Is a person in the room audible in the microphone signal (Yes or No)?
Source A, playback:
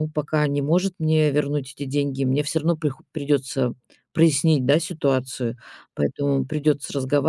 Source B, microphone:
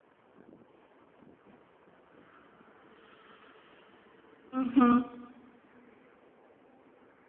Yes